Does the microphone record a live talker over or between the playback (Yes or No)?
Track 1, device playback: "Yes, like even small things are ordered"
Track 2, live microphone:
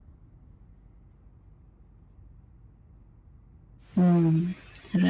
Yes